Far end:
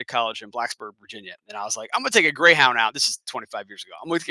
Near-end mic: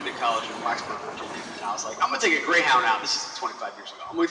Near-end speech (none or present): none